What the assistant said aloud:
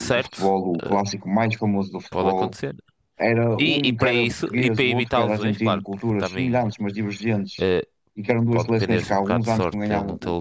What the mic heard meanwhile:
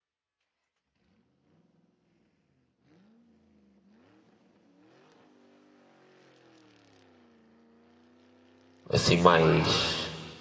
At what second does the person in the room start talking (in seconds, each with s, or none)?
8.9 s